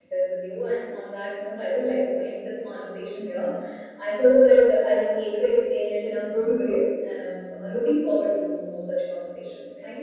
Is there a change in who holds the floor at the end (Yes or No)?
Yes